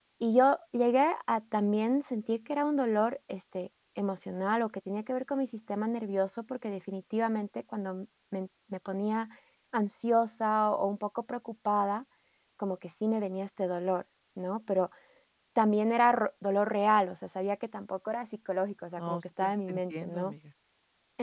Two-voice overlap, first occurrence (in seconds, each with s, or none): 19.0 s